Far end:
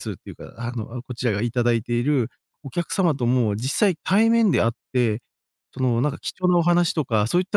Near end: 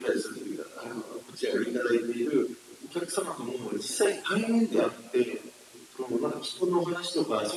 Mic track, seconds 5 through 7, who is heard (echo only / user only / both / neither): echo only